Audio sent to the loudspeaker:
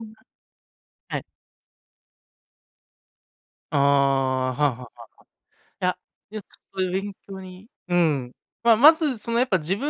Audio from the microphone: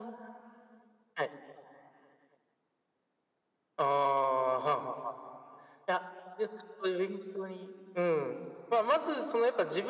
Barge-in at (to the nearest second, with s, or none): none